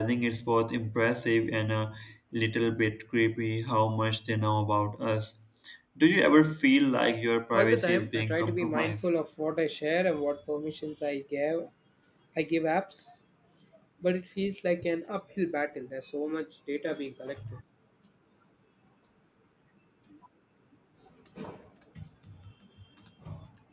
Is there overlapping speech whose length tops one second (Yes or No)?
Yes